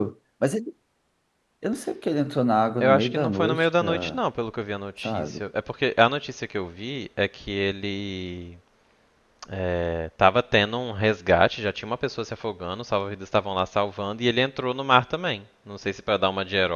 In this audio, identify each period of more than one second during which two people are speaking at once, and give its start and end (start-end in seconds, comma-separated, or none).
2.8-4.2